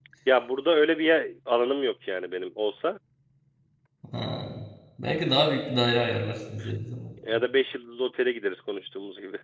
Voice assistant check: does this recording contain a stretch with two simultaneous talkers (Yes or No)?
No